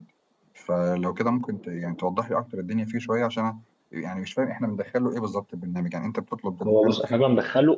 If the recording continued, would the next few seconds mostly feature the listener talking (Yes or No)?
Yes